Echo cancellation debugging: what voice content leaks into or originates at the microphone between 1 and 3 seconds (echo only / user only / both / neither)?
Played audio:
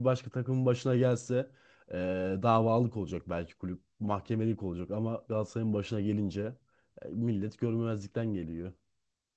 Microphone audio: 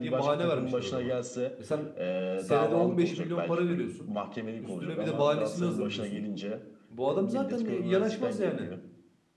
both